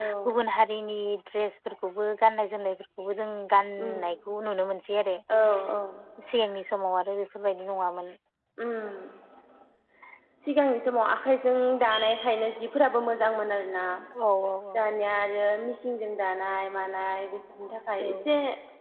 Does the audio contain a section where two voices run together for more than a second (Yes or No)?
No